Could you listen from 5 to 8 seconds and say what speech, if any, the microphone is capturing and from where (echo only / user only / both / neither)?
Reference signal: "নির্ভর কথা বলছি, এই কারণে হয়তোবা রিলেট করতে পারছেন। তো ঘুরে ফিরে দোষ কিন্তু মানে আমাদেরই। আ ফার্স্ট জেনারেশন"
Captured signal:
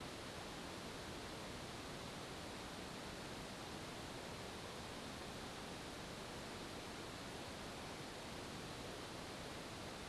neither